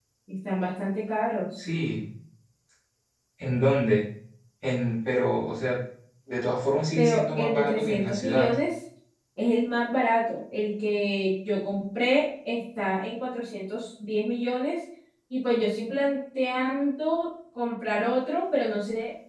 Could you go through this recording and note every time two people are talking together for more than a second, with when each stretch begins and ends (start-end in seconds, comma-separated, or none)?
7.0-8.5